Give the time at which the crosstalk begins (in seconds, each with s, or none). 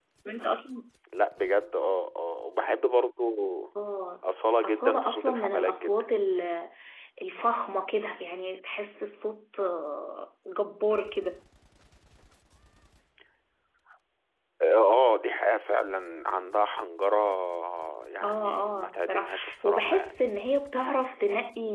4.6 s